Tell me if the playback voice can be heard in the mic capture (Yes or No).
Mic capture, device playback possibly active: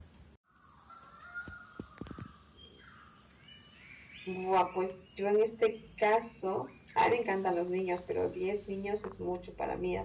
No